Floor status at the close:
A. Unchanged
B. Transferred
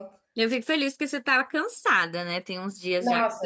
B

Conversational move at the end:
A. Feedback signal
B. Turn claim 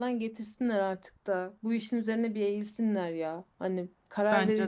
A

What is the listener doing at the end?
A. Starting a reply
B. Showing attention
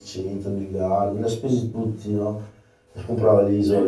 B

